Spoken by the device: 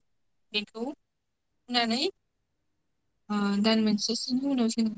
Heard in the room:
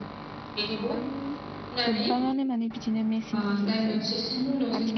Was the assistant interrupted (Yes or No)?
Yes